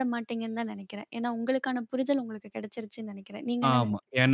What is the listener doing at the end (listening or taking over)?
taking over